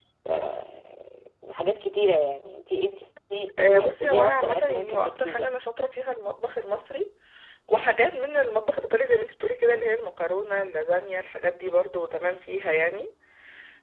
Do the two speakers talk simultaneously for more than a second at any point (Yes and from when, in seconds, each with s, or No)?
Yes, from 3.6 s